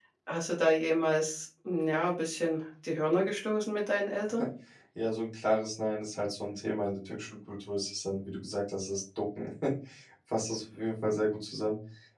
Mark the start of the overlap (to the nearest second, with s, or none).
none